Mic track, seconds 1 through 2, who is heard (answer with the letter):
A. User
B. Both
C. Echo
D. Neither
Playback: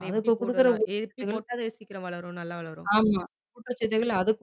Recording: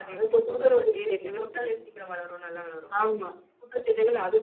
B